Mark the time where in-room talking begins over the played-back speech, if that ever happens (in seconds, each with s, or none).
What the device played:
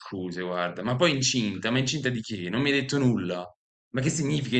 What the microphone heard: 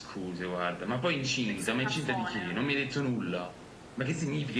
1.4 s